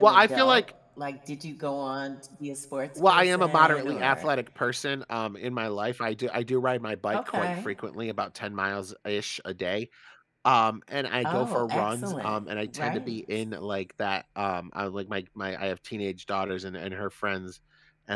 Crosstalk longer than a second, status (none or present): present